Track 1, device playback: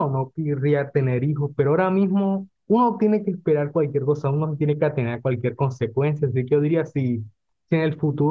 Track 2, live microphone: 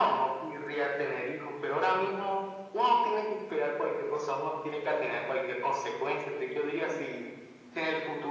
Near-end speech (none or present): none